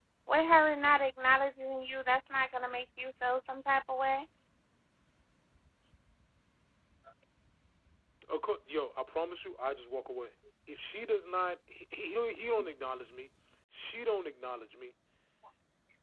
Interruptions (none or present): none